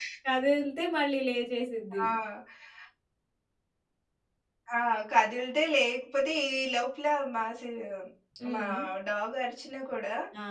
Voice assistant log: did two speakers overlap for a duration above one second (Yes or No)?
No